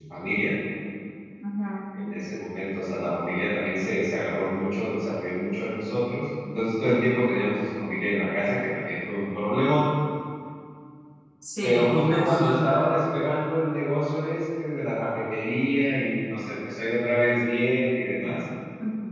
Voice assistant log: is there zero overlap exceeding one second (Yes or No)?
No